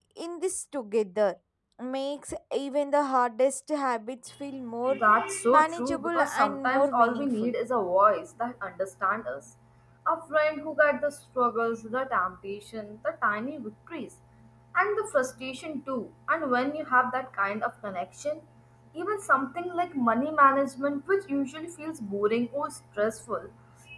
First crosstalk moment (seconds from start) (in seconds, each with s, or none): 5.5 s